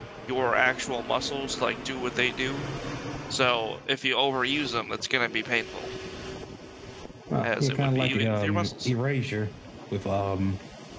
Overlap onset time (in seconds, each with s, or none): 7.4 s